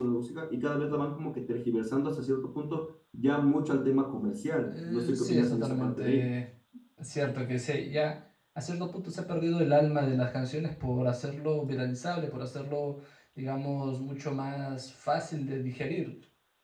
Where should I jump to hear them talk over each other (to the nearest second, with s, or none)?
5 s